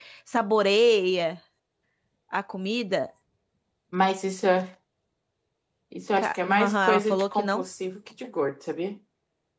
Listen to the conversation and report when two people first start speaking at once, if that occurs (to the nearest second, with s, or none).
6 s